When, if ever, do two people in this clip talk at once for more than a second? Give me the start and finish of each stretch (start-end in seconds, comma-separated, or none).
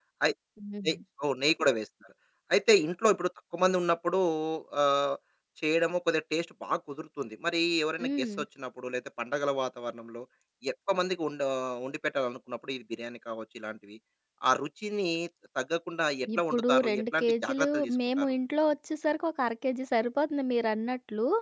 16.4-18.3